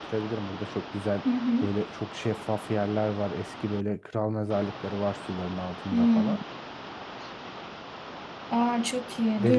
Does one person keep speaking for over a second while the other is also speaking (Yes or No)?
No